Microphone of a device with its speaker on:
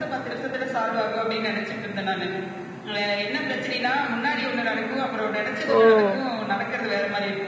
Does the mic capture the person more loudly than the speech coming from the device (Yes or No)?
Yes